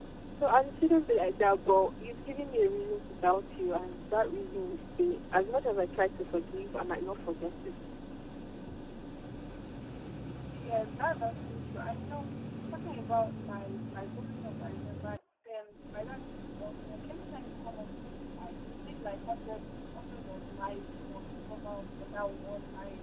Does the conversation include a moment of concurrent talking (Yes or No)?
No